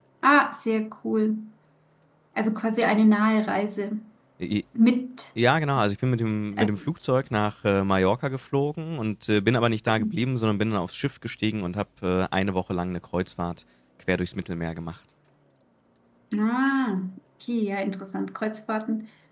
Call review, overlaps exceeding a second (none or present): none